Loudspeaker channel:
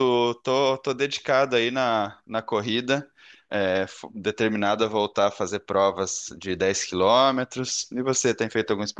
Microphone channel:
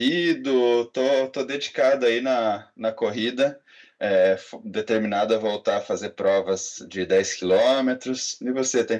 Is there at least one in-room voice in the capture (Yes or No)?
No